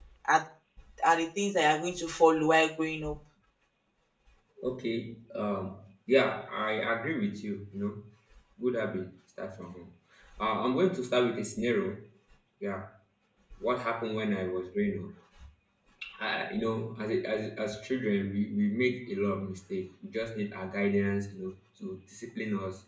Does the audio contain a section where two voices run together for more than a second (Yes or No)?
No